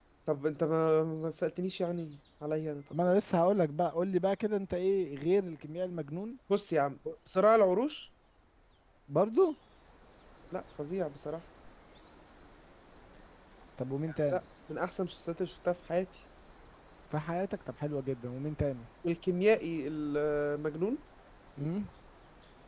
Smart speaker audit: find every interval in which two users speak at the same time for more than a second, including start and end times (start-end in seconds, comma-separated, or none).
none